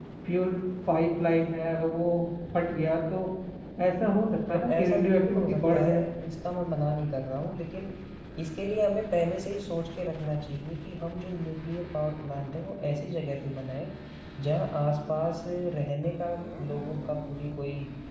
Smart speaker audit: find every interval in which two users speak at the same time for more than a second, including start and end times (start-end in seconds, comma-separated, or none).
4.5-6.0